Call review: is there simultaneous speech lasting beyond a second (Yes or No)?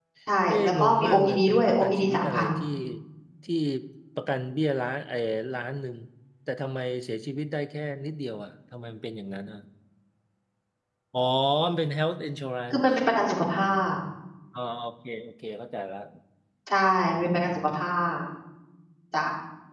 Yes